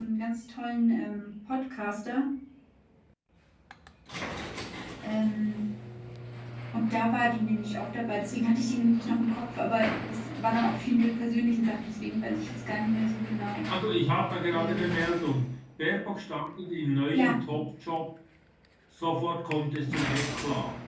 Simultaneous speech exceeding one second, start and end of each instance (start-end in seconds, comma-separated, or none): none